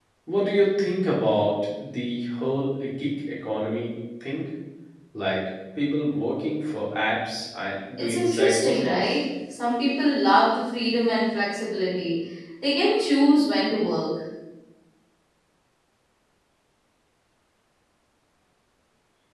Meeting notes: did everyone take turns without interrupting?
No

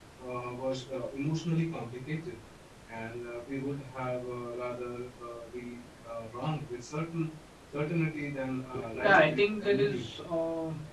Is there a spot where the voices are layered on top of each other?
Yes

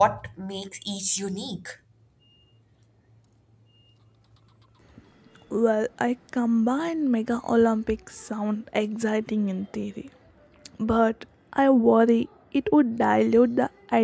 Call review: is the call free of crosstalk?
Yes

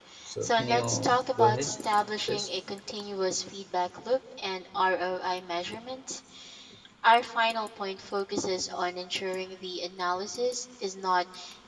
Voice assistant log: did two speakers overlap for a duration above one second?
Yes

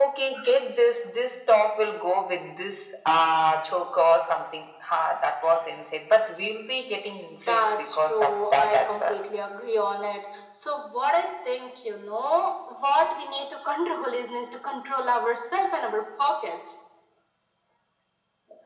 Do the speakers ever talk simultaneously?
Yes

